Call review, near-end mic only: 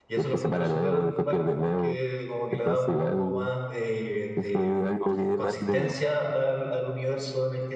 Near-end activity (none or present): present